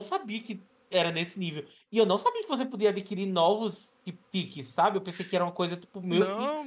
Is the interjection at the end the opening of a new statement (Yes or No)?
Yes